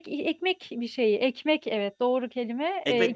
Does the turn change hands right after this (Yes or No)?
No